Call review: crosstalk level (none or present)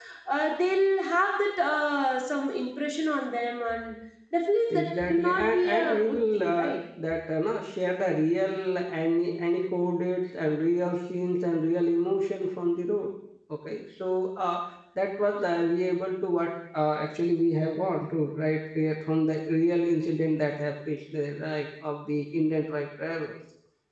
present